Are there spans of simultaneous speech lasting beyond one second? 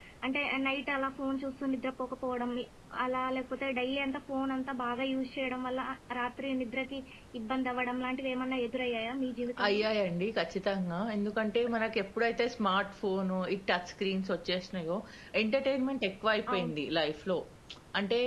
No

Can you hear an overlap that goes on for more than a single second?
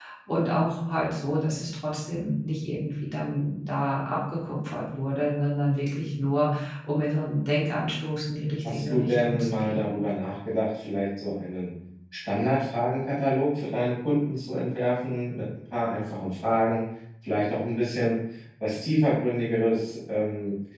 Yes, from 8.6 s

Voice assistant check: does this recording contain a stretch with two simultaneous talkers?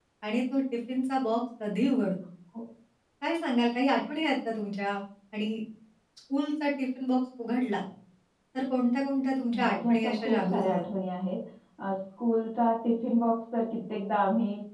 Yes, from 9.5 s

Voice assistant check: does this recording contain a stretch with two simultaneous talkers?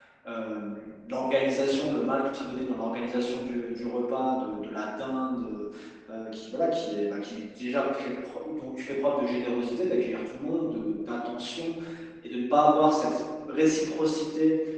No

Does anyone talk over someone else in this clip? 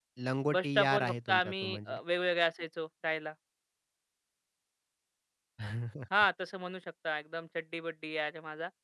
Yes, from 0.5 s

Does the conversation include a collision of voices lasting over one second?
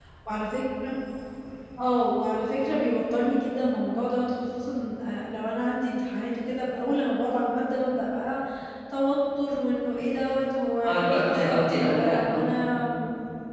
Yes, from 10.8 s

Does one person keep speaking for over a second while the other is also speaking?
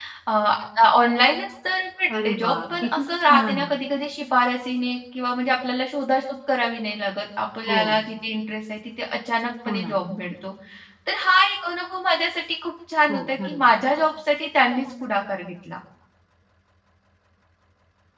Yes, from 2.2 s

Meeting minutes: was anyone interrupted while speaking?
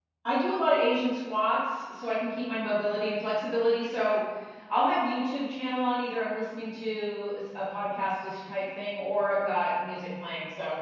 No

